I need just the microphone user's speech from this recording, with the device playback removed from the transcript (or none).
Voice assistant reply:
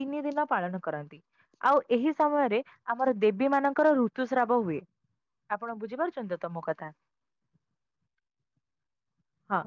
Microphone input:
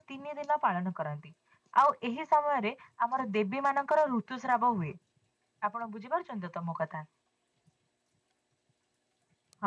none